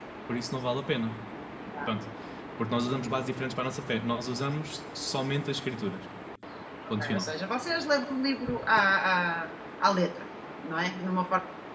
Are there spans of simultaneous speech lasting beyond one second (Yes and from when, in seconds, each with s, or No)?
No